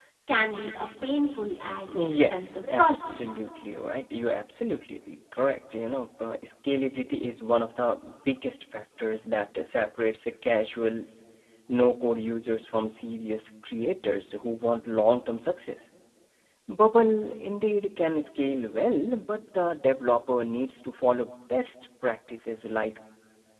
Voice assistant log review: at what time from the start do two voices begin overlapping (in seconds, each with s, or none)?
1.9 s